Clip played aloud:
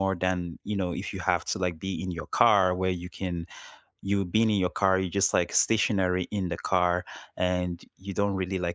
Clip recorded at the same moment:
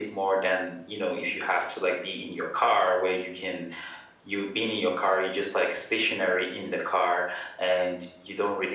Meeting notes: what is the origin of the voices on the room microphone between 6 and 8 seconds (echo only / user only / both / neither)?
echo only